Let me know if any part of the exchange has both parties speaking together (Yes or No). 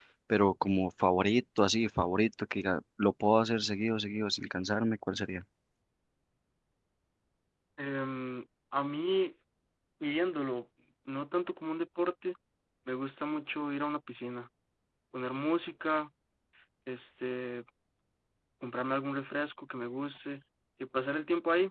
No